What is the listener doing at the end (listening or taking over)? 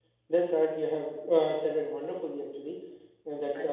listening